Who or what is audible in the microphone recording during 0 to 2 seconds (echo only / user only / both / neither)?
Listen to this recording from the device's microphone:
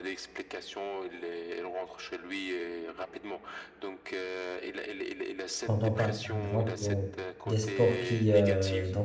echo only